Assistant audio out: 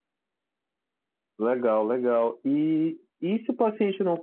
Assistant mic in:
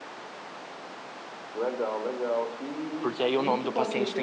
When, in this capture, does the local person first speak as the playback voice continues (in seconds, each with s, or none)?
3.0 s